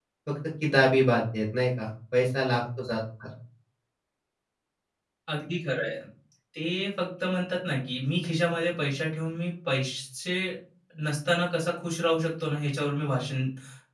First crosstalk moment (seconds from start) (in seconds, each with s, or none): none